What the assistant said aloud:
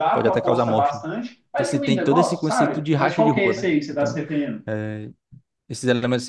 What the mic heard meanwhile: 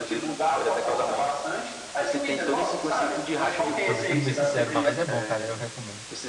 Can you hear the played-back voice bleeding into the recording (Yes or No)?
Yes